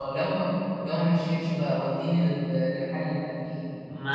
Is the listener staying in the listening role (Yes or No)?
No